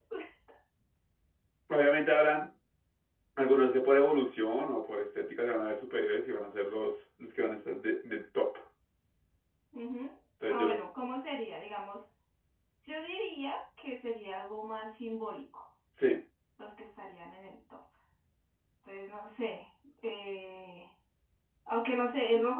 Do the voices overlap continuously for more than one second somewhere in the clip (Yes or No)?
No